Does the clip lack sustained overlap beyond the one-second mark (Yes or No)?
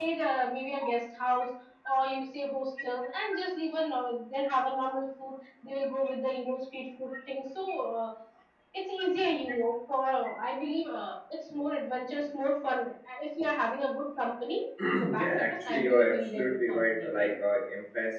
No